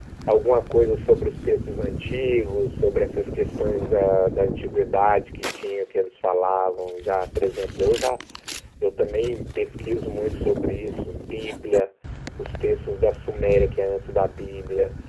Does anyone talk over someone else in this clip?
No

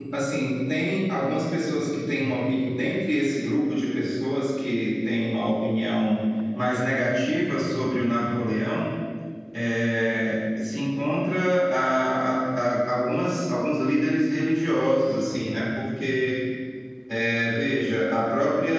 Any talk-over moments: No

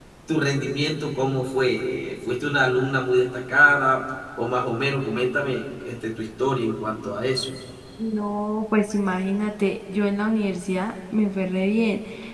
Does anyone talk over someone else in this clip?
No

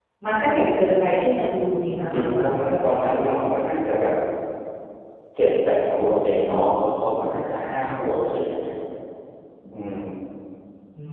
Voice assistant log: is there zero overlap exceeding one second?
Yes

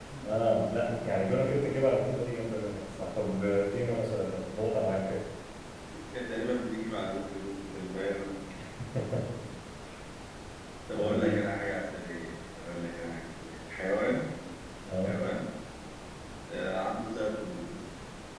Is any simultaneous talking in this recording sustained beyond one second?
No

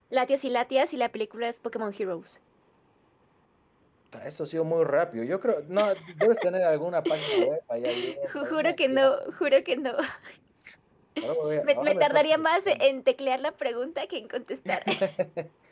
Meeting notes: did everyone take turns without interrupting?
No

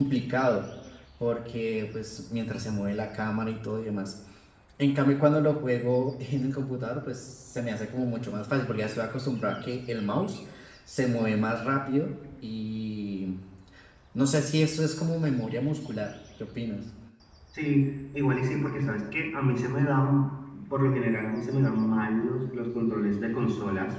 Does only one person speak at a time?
Yes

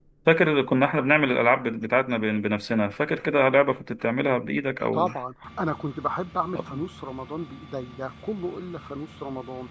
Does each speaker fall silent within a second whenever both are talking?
Yes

